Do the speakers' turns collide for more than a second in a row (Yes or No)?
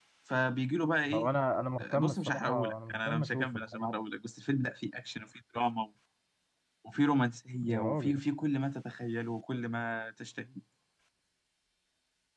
Yes